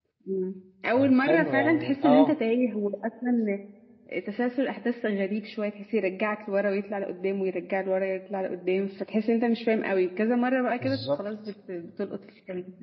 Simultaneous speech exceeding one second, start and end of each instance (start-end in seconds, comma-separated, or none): 0.9-2.3